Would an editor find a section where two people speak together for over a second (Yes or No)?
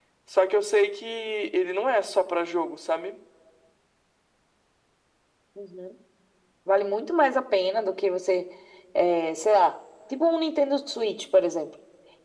No